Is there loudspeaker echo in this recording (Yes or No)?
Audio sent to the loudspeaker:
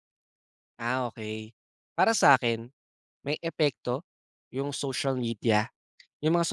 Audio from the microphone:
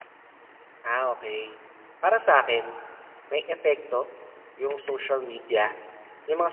Yes